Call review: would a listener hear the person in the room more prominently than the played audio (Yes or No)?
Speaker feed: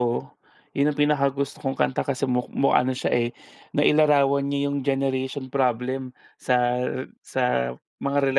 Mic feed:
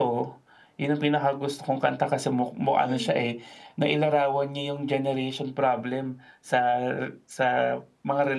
No